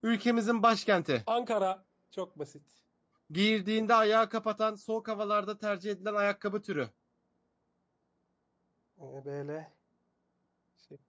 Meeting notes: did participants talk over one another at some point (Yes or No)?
No